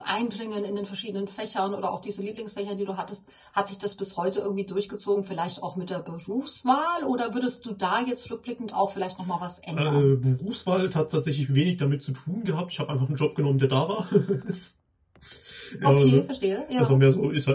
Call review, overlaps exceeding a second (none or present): none